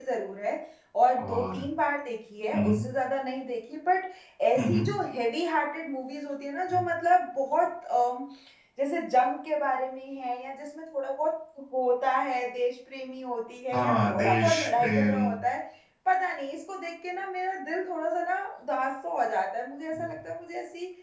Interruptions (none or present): present